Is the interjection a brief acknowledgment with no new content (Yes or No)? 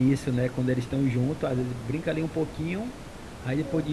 Yes